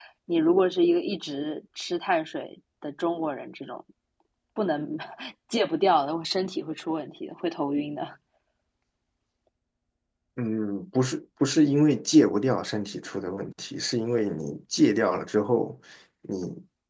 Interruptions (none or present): none